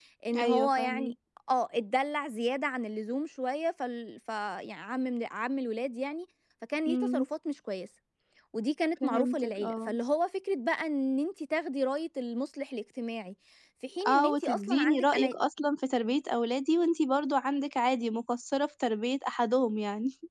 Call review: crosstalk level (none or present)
present